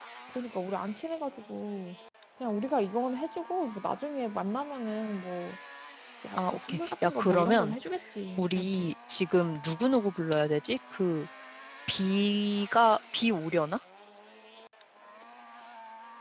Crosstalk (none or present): present